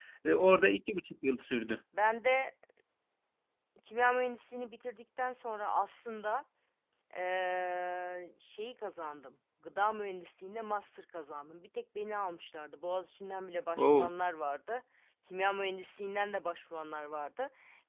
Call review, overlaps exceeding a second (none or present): none